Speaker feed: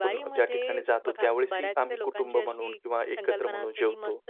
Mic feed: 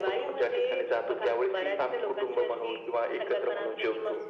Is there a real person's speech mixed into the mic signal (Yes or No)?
No